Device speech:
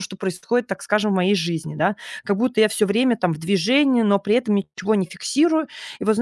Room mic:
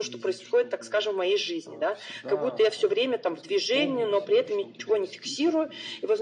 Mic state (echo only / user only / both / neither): both